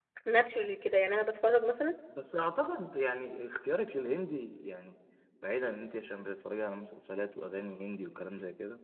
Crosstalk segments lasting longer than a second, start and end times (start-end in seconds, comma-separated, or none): none